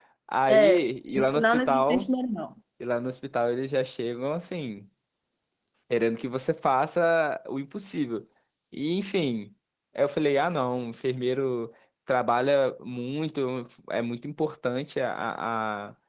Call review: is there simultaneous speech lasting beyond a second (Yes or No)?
Yes